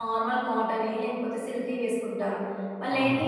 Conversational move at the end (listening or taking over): listening